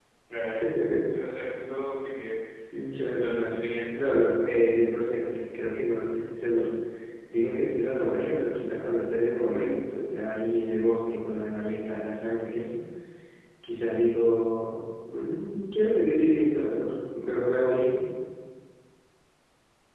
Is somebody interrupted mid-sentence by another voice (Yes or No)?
Yes